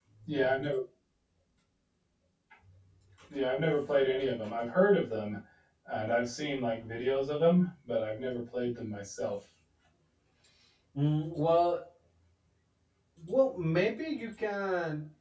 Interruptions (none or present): none